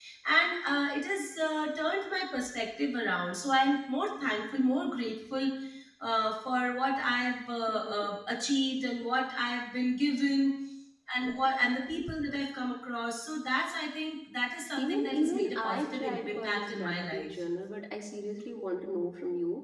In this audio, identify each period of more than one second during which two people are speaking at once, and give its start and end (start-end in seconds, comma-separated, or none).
14.8-17.3